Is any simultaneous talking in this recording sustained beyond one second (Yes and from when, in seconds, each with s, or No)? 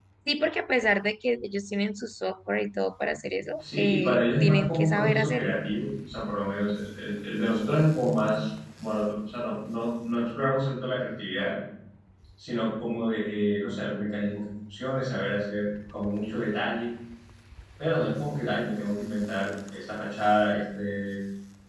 Yes, from 3.6 s